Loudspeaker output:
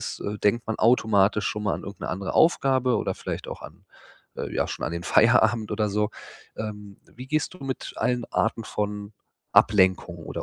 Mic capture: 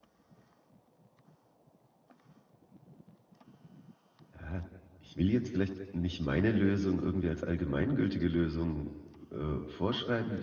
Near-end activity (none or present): present